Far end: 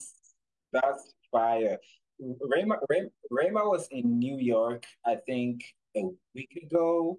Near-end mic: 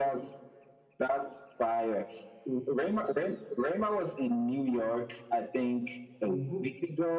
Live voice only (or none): hmm